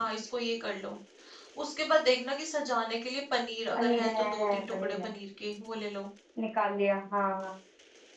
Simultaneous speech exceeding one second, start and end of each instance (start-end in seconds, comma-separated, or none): 3.8-5.1